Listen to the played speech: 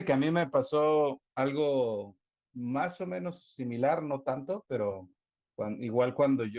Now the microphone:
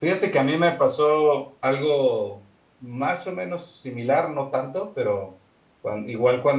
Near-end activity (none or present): none